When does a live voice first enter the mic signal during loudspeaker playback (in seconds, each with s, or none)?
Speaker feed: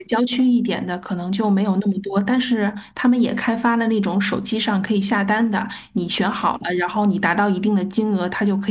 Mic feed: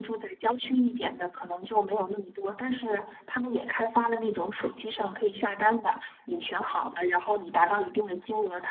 none